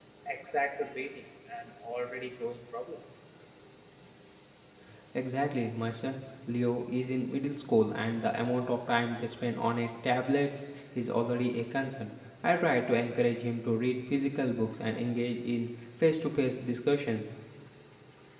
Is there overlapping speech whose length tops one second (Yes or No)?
No